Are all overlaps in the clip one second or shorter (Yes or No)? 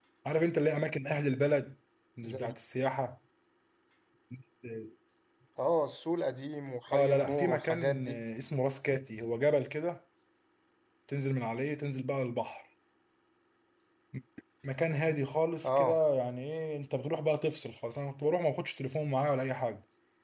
No